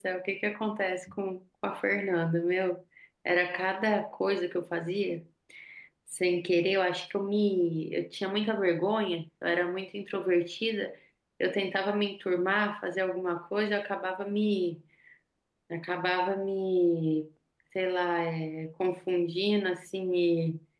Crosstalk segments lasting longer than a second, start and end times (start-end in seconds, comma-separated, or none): none